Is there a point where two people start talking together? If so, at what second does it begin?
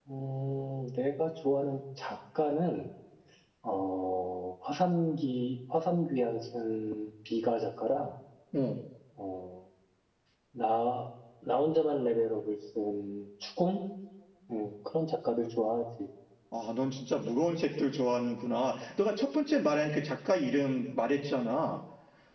none

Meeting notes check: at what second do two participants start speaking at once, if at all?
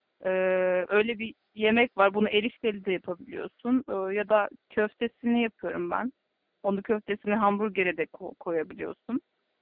none

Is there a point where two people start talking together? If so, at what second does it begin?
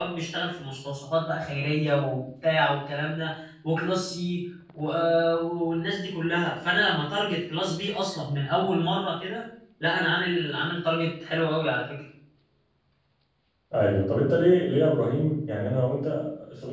none

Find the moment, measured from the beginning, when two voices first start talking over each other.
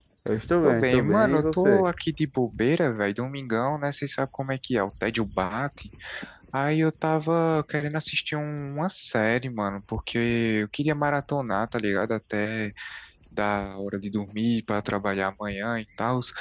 1 s

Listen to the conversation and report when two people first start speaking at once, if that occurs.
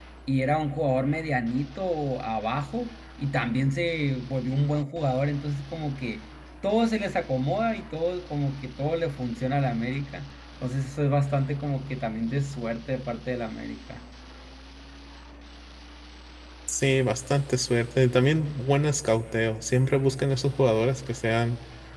none

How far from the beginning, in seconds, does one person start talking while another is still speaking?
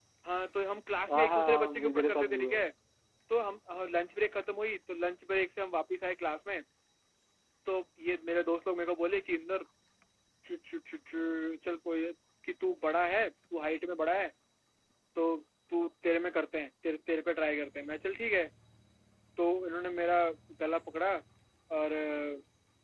1 s

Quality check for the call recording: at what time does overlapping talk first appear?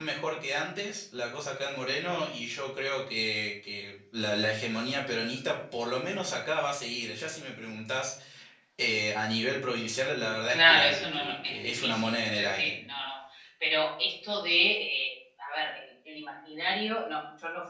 10 s

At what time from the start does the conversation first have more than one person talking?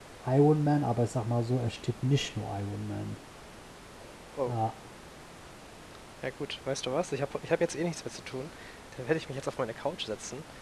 none

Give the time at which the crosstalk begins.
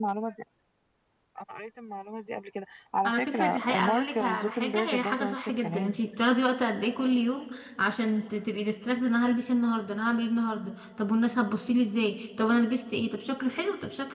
3 s

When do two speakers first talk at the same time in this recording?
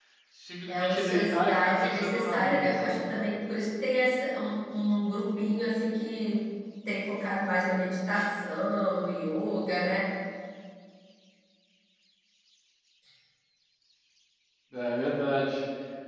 1 s

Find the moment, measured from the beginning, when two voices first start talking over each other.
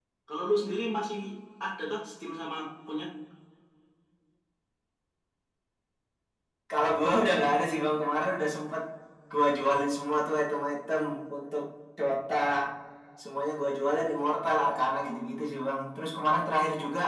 none

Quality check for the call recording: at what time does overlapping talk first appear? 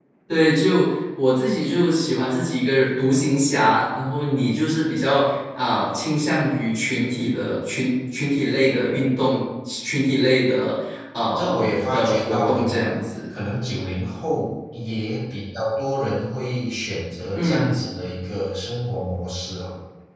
11 s

